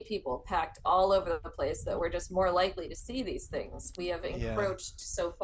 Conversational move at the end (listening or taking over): listening